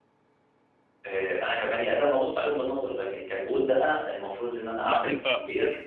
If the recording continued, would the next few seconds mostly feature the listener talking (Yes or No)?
No